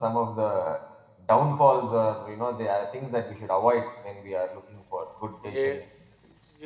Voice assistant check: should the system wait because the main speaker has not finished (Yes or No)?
No